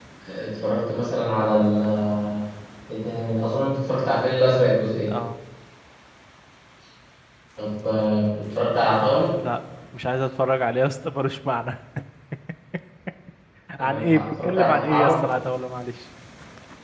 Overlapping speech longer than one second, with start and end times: 13.8-15.1

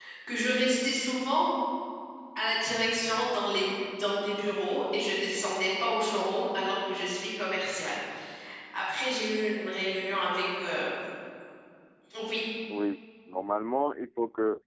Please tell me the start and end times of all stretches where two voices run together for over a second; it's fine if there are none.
none

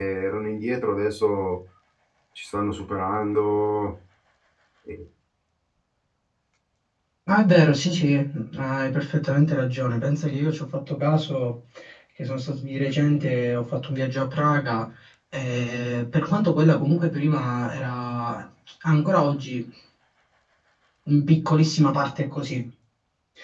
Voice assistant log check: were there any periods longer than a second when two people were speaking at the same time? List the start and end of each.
none

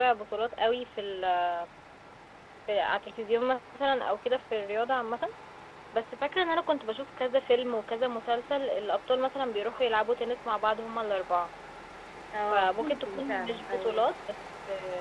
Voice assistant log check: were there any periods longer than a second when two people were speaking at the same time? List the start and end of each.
12.5-14.0

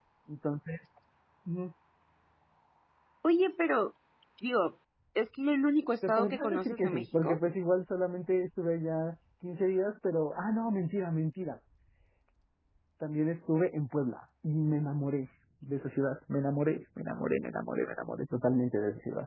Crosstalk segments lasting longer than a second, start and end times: 6.0-7.4

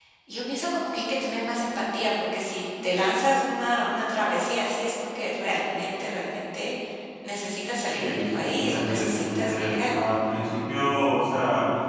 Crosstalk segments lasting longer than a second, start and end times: 8.0-9.9

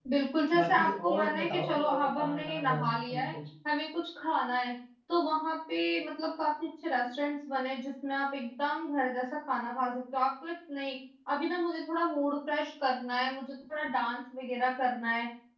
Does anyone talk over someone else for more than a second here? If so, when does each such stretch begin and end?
0.5-3.3

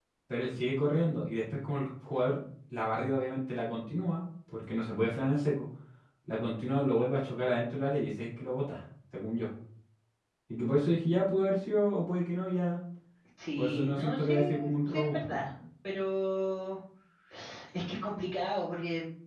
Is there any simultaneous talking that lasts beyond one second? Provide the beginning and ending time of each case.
13.6-15.2

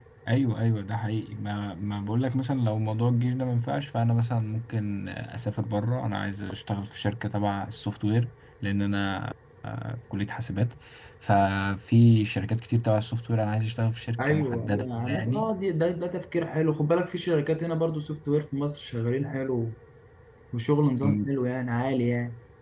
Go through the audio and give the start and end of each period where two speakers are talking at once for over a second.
14.2-15.5

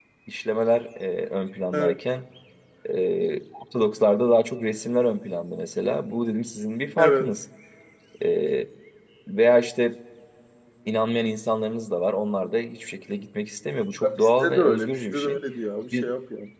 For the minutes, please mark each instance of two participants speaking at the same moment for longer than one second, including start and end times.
14.0-15.4

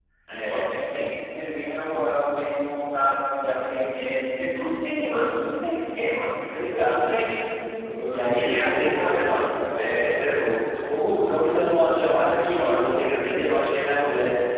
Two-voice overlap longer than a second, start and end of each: 8.1-9.3

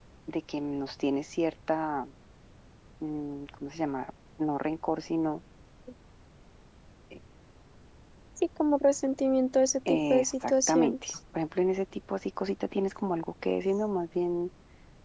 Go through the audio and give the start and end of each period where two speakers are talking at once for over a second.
9.9-11.1

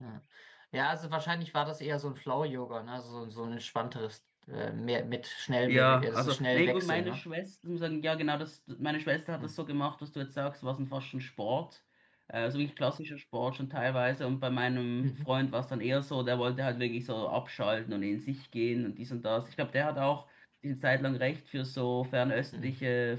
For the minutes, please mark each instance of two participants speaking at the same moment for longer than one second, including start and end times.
5.7-7.2

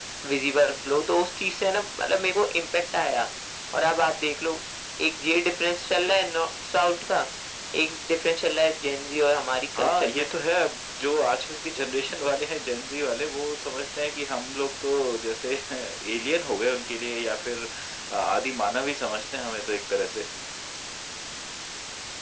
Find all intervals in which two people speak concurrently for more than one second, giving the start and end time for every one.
none

